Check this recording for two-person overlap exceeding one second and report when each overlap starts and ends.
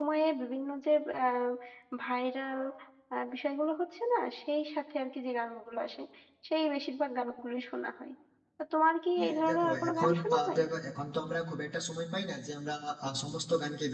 9.2-10.6

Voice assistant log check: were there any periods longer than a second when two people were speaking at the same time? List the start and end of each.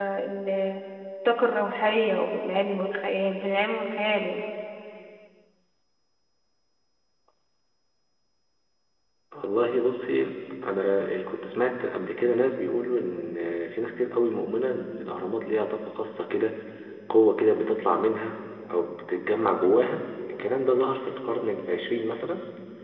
none

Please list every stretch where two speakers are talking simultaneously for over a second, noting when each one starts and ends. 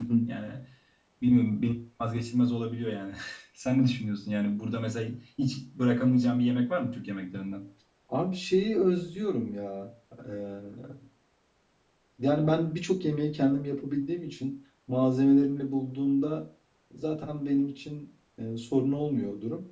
none

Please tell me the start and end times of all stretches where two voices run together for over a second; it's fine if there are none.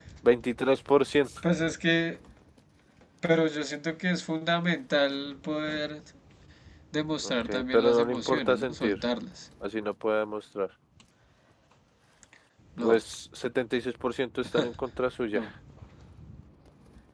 7.2-9.0

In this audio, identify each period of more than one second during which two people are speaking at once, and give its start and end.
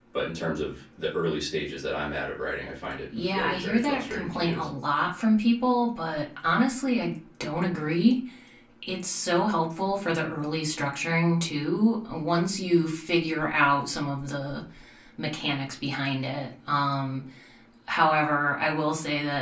3.2-4.7

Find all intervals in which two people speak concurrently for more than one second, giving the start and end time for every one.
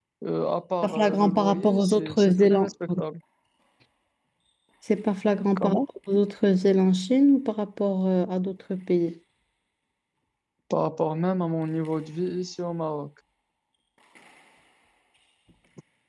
0.8-2.6

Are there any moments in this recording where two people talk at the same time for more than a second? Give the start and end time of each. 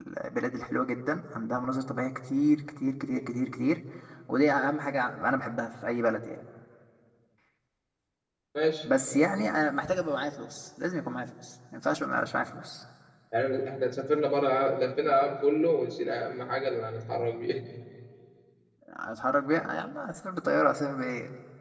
none

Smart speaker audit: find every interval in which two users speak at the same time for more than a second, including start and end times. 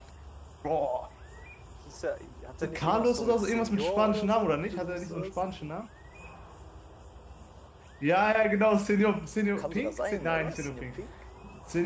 2.6-5.3, 9.6-11.0

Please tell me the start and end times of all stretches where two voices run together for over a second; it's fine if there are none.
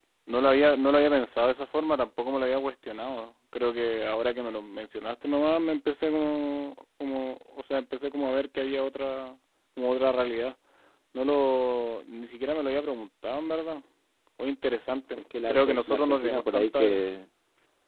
15.2-17.0

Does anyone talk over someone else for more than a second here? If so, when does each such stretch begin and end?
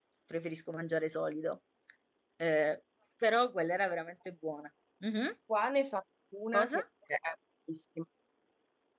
none

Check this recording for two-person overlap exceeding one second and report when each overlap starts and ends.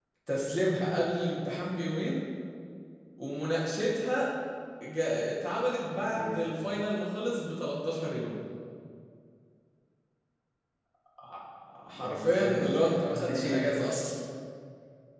11.9-14.1

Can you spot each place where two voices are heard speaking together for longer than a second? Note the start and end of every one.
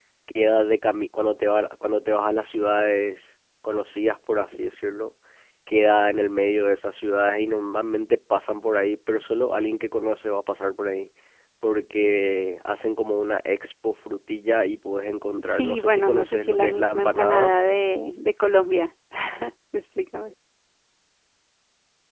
15.4-17.5

